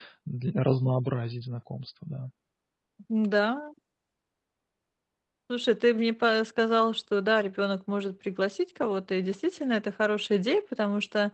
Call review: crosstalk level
none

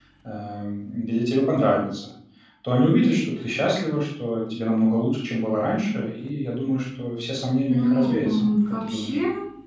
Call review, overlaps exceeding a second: present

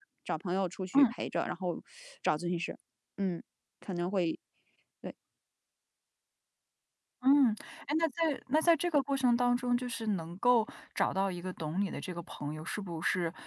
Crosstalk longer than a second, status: none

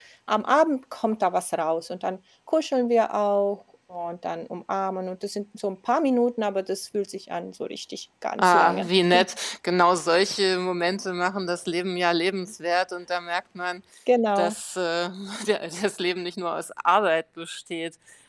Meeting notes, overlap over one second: none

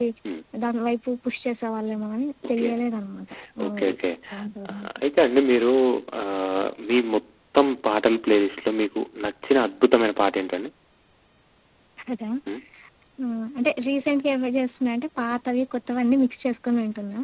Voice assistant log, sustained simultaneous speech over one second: none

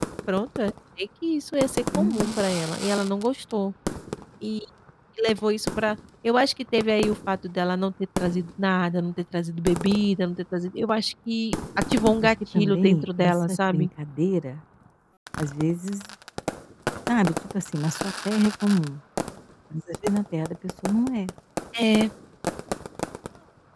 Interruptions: present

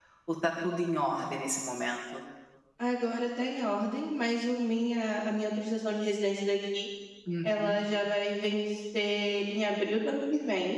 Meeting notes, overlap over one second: none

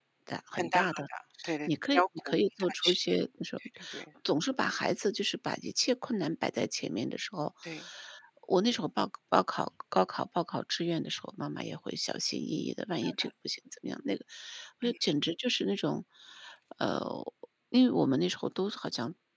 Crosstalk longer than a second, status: present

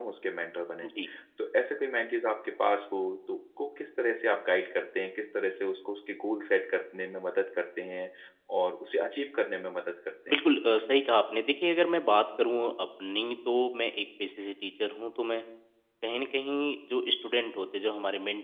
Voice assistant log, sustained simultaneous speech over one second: none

